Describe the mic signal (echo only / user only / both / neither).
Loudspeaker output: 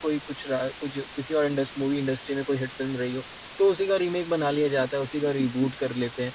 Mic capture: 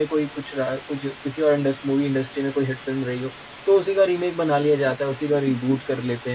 echo only